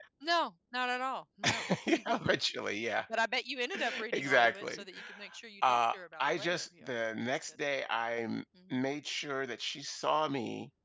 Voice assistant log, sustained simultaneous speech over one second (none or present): present